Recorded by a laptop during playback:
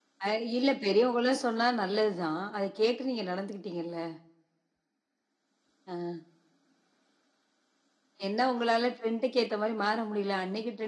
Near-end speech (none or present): none